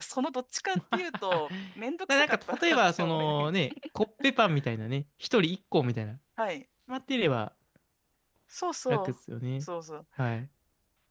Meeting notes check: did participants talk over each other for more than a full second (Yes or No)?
Yes